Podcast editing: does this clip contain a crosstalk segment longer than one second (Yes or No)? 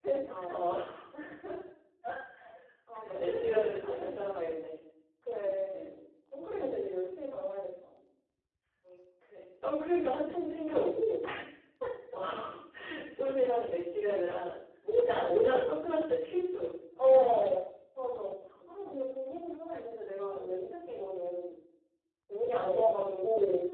Yes